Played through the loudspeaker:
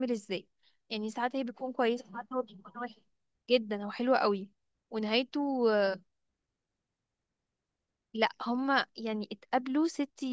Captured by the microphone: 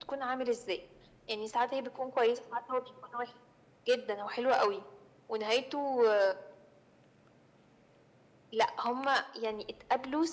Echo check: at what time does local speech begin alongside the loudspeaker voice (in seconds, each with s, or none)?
none